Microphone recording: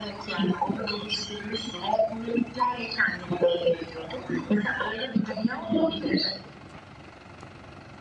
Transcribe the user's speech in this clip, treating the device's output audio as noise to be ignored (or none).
hmm.